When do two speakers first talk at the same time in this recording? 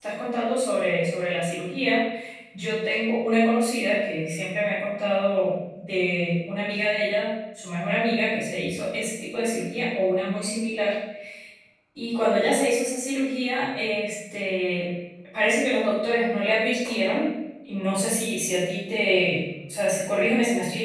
none

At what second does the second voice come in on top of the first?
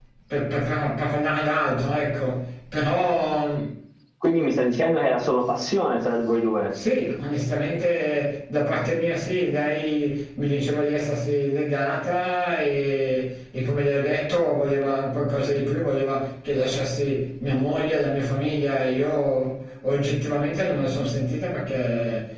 none

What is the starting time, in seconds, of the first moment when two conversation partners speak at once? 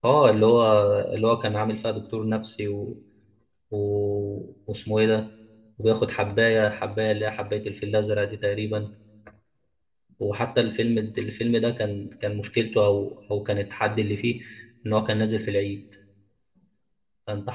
none

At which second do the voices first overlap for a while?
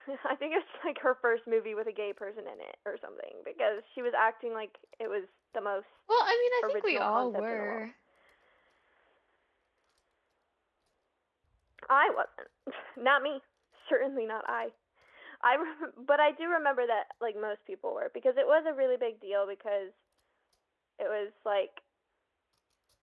6.6 s

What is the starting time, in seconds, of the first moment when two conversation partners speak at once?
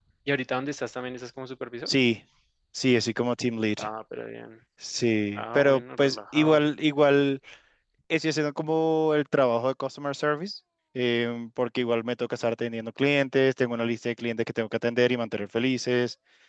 5.3 s

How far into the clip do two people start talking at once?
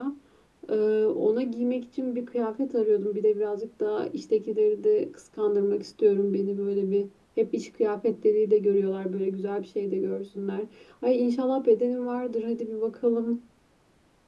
none

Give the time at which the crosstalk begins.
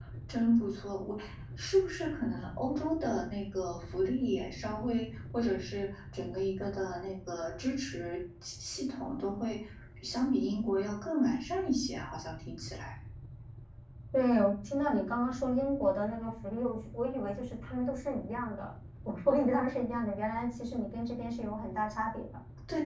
none

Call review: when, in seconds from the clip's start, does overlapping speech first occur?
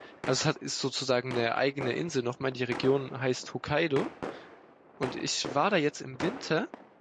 none

